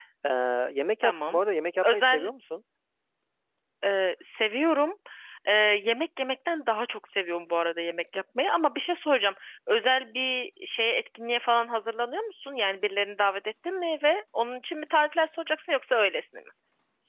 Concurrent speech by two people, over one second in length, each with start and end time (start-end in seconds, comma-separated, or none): none